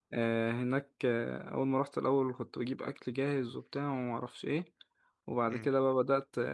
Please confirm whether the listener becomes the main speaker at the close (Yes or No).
No